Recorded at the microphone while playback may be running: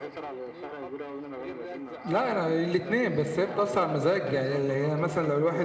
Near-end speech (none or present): present